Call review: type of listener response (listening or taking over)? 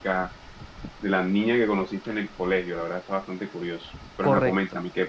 taking over